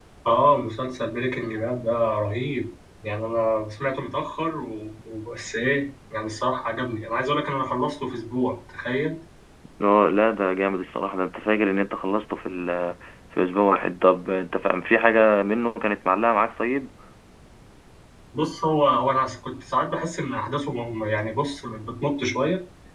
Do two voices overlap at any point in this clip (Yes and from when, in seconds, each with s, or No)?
No